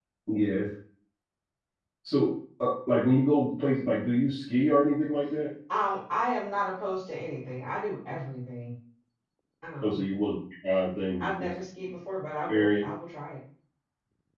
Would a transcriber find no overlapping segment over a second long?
Yes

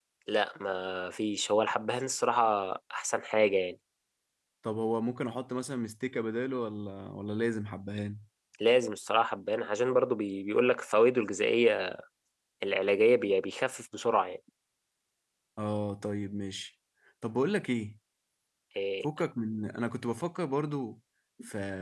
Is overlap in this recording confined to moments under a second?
Yes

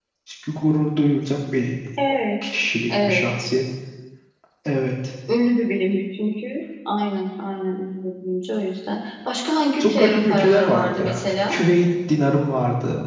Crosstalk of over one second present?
Yes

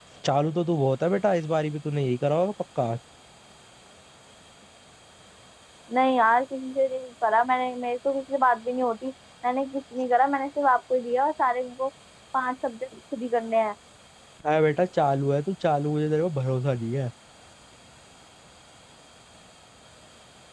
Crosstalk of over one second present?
No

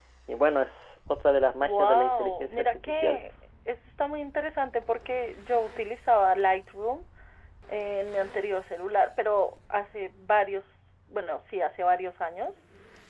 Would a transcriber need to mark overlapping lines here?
Yes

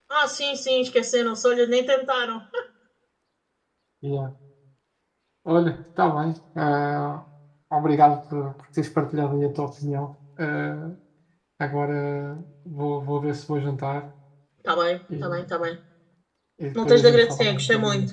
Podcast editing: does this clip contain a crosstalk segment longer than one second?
Yes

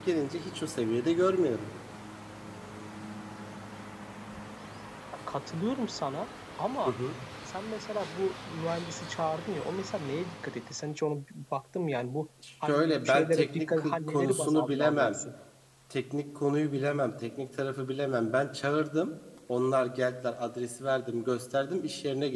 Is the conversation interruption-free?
No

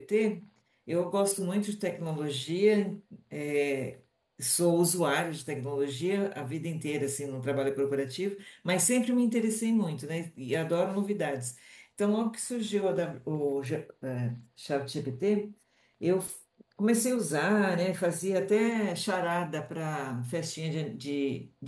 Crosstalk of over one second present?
No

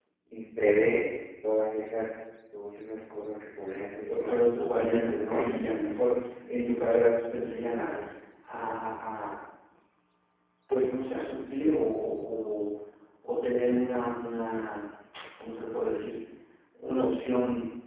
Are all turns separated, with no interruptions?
No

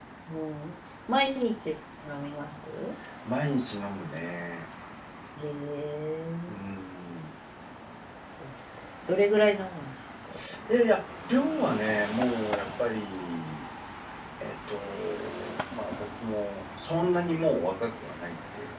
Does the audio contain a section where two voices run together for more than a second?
No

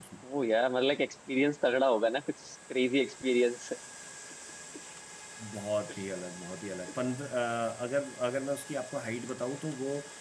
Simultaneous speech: No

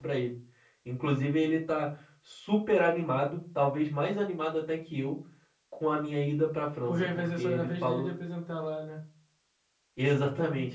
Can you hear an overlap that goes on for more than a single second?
Yes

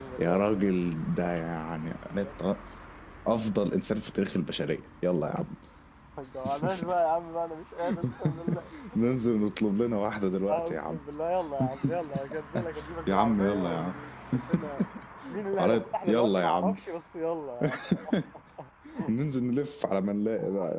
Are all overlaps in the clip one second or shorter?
No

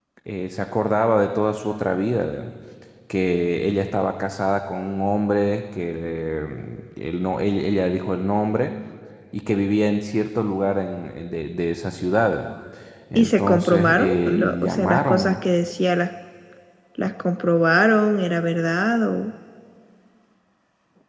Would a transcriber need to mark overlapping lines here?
Yes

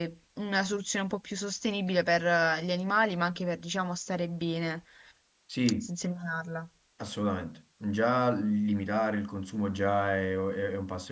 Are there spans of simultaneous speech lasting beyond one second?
No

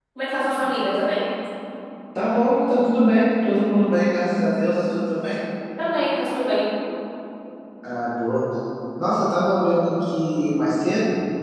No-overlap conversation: Yes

